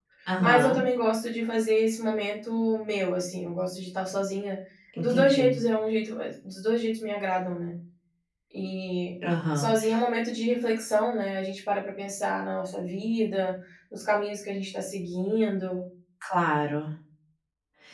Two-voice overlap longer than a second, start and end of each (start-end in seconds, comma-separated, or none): none